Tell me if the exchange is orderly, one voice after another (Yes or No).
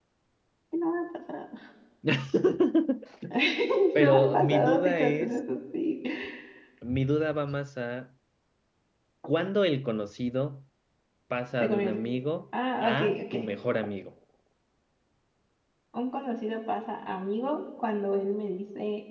No